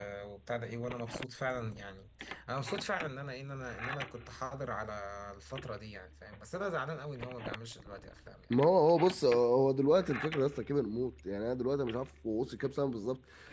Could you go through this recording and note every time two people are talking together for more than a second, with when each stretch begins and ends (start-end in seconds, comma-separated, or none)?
none